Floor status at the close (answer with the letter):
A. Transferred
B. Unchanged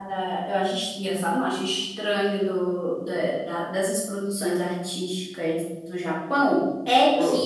B